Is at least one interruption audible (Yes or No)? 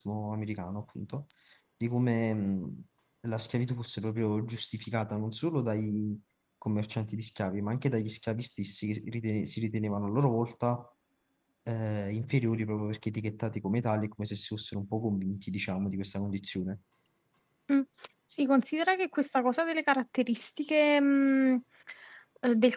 No